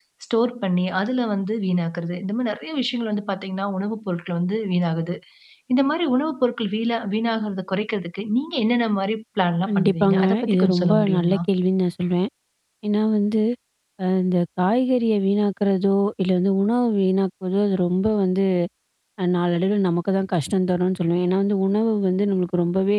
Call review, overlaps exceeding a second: present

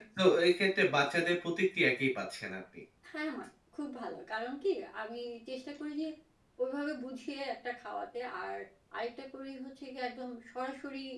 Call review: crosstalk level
none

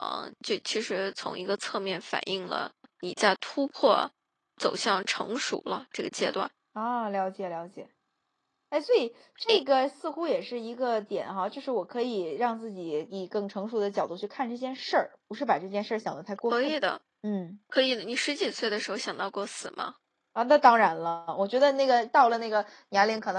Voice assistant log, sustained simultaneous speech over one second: none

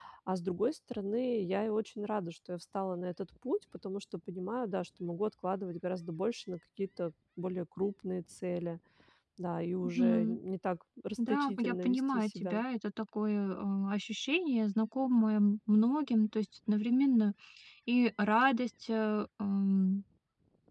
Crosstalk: present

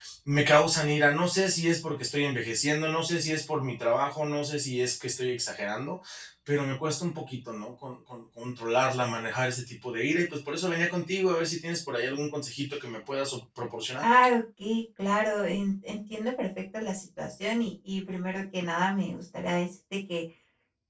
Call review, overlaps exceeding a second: none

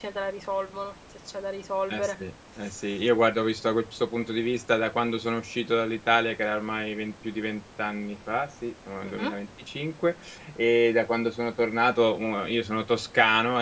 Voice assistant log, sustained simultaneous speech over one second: none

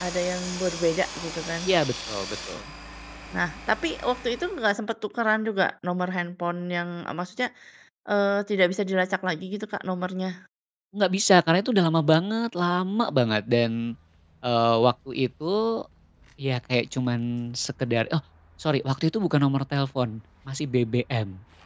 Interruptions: none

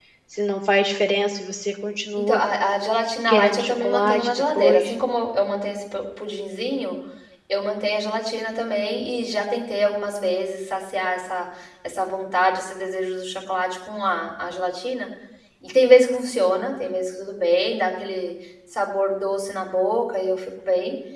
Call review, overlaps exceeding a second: present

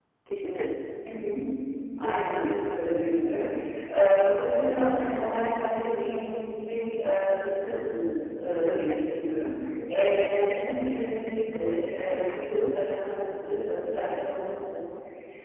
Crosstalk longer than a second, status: none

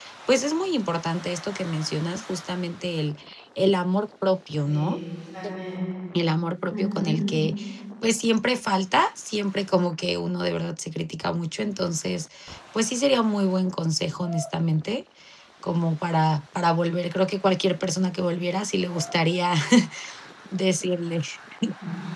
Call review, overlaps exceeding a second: none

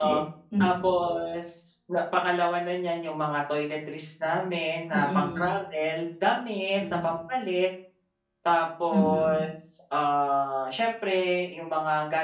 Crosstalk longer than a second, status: none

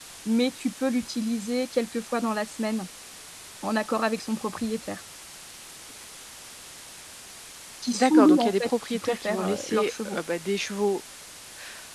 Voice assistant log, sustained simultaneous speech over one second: present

